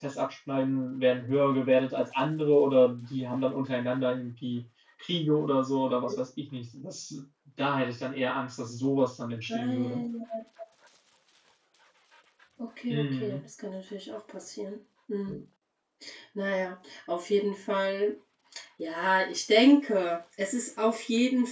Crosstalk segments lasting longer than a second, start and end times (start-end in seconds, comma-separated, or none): none